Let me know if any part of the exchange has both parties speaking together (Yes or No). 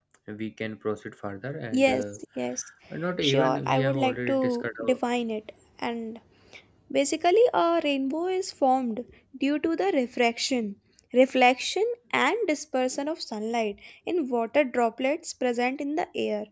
Yes